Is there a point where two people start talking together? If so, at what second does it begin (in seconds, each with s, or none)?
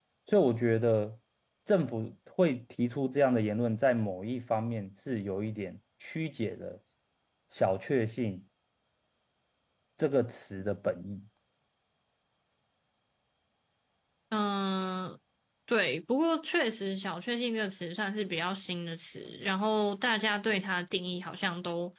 none